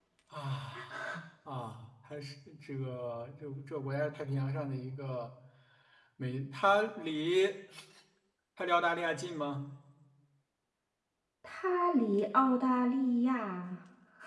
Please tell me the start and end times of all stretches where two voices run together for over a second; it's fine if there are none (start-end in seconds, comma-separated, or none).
none